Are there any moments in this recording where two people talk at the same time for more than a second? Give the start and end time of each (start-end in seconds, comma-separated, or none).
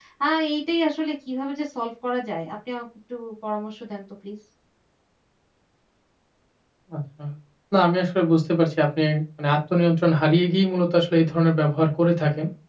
none